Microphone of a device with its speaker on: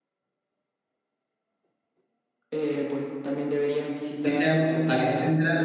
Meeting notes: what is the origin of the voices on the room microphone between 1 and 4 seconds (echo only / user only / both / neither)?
echo only